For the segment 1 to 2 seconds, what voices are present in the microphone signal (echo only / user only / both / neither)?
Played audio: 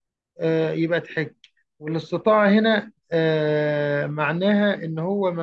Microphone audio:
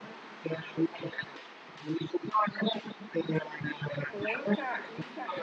echo only